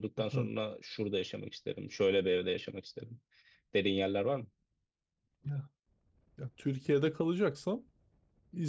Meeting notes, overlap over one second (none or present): none